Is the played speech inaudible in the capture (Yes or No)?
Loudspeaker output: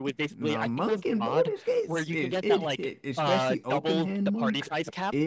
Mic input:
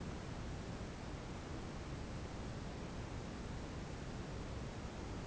Yes